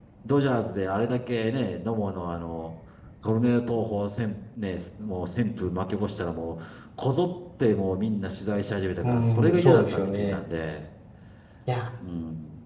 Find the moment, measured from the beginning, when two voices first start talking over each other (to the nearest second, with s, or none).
9 s